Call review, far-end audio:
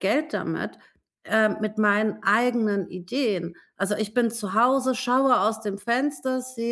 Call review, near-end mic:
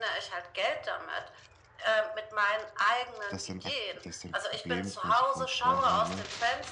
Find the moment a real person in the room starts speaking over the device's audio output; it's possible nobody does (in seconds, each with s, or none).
3.3 s